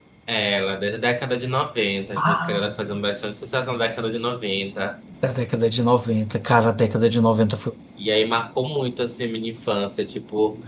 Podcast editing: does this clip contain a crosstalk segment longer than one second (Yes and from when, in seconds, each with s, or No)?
No